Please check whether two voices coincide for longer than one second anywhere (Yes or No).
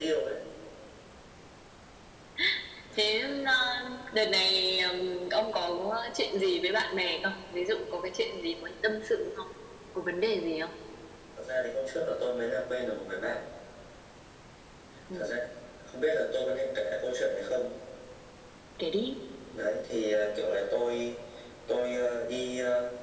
No